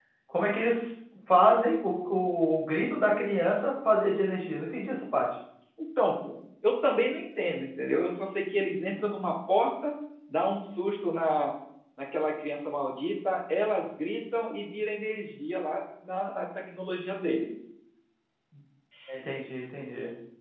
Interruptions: none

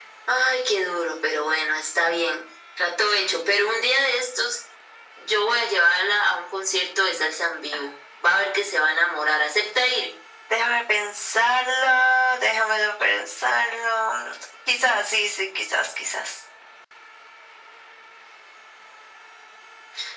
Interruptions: none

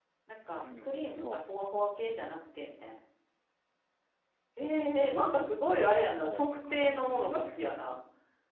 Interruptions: present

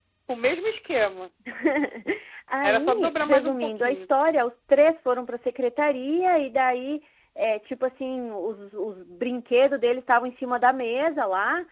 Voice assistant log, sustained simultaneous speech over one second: present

